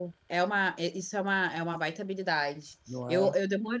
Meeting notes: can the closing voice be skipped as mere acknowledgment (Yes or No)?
Yes